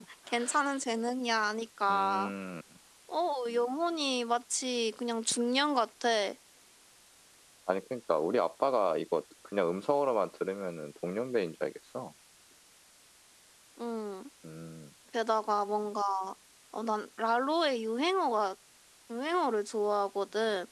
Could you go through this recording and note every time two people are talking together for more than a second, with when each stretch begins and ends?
none

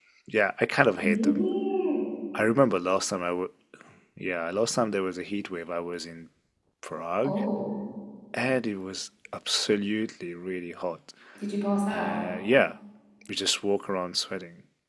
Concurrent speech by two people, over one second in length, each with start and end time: none

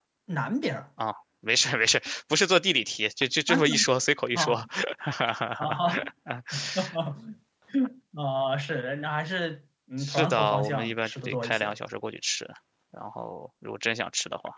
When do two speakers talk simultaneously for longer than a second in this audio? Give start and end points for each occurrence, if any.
10.0-11.7

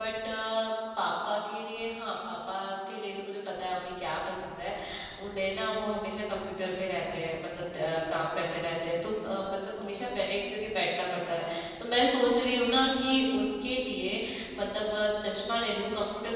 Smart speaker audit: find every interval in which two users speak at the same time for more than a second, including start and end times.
none

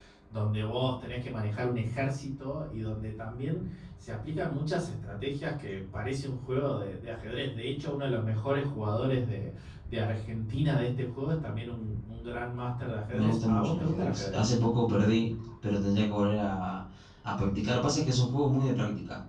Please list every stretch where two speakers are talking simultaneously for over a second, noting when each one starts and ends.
13.1-14.4

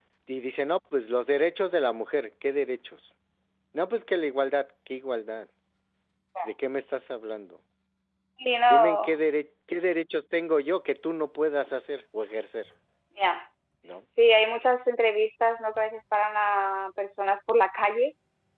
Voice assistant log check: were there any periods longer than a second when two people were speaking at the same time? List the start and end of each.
none

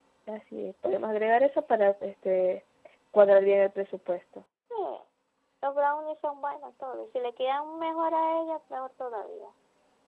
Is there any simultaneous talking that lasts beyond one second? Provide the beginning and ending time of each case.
none

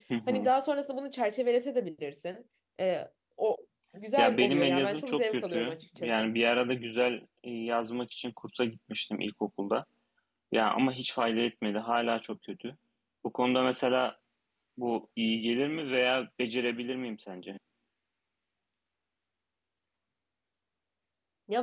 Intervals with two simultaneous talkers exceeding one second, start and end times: 4.2-6.3

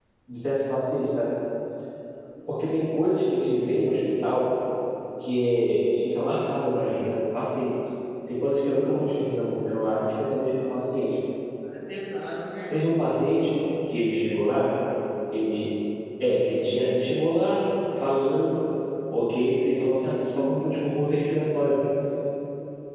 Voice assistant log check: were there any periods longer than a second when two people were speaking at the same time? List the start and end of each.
none

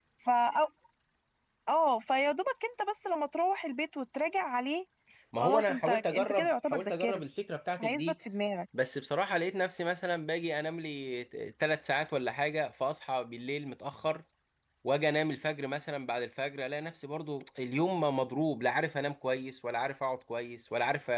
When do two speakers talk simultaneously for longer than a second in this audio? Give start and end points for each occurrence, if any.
5.4-7.2

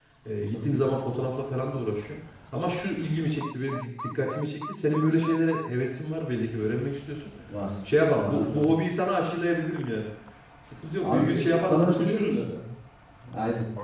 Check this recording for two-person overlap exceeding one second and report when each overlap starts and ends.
11.0-12.4

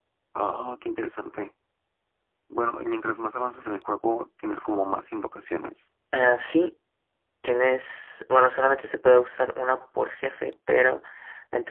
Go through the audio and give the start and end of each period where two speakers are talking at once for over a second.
none

